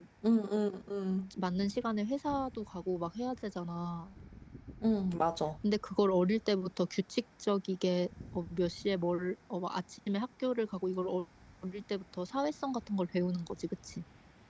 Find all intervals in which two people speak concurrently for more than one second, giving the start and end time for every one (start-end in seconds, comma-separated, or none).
none